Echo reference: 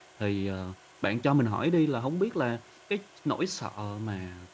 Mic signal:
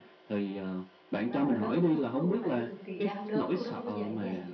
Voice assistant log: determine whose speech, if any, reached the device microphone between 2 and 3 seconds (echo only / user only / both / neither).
both